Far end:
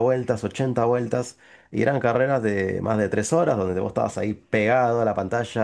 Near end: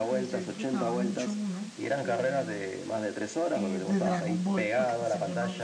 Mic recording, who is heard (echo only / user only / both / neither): both